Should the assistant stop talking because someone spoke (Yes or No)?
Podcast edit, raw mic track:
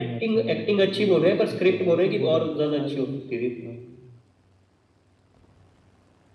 Yes